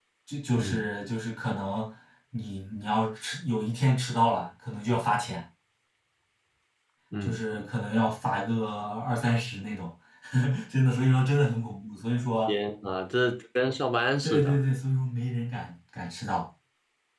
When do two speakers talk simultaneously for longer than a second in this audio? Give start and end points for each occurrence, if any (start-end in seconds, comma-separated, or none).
none